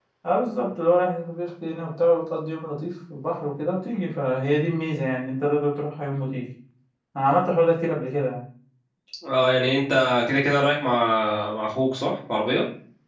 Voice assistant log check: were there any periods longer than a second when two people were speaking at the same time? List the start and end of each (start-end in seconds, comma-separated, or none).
none